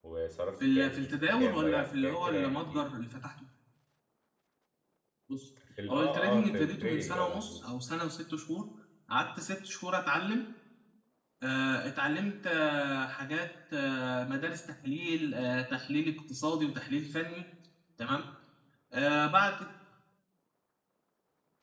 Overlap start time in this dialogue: 0.7 s

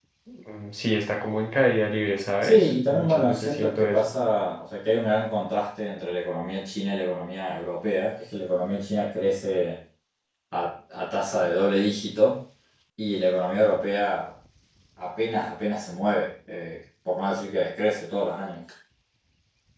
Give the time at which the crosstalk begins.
2.4 s

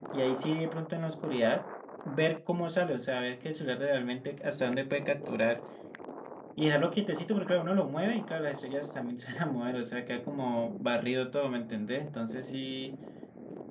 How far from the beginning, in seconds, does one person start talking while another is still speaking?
none

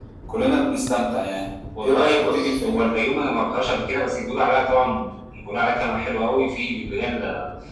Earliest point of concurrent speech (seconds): 1.8 s

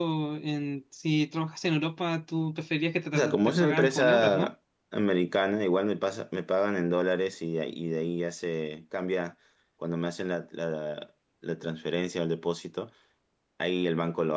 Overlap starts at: 3.1 s

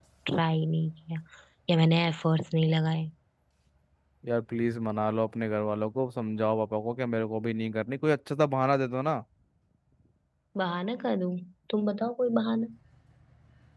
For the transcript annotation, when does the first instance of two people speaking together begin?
none

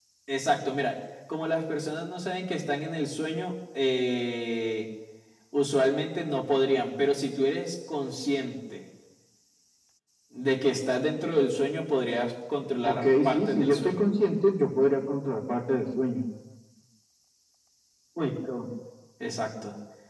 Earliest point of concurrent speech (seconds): 12.8 s

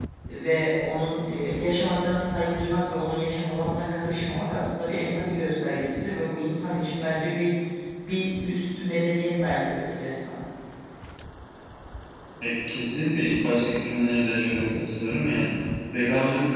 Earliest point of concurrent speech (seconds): none

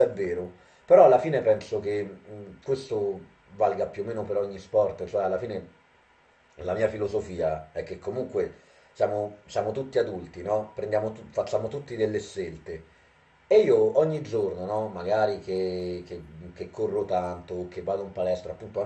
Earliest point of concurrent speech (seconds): none

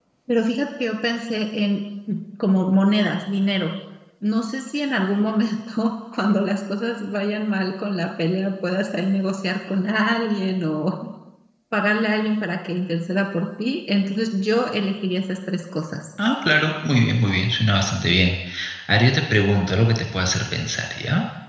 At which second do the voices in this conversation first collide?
none

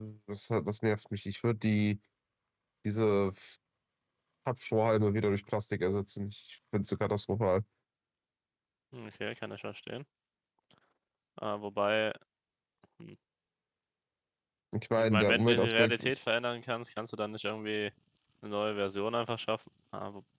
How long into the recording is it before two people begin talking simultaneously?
15.0 s

